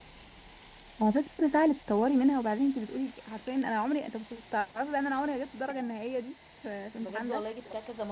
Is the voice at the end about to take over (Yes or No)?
Yes